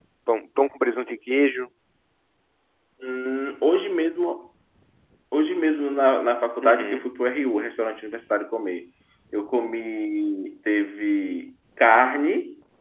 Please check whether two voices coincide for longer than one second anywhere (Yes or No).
No